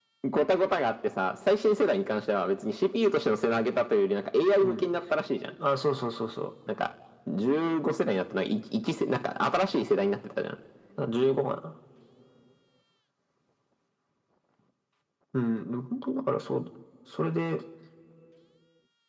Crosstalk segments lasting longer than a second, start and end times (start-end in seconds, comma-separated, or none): none